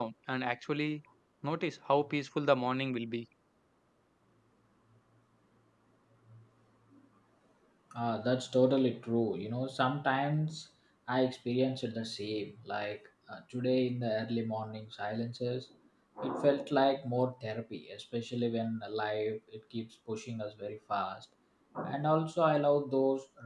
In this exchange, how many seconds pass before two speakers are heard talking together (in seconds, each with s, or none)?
none